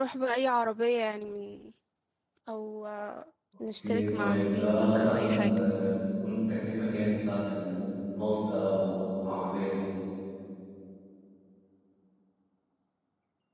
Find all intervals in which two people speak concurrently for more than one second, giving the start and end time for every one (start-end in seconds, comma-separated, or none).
3.8-5.6